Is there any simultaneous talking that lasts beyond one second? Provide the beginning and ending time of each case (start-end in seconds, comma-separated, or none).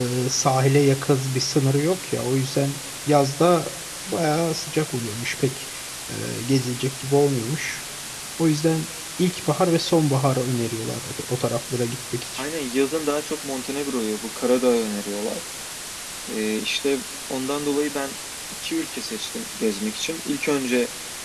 none